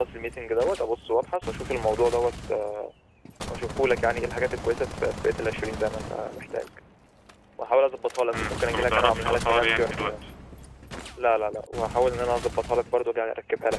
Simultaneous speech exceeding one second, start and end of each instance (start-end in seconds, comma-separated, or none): 8.3-10.2